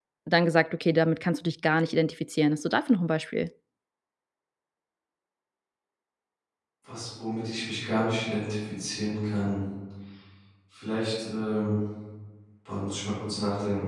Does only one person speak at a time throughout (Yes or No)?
Yes